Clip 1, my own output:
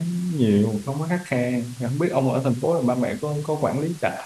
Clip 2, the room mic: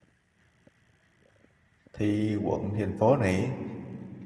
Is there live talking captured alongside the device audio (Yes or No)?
Yes